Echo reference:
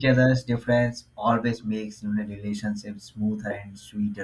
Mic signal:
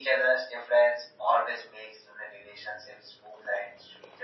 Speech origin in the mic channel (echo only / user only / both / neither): echo only